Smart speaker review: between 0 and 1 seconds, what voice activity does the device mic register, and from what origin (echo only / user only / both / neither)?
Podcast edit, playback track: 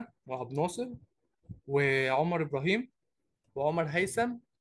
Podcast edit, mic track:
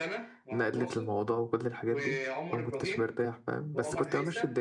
both